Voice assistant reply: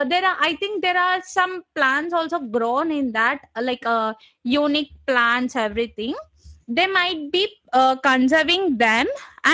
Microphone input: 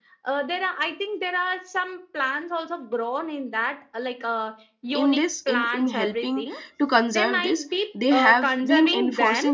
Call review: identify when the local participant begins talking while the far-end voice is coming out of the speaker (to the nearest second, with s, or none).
5 s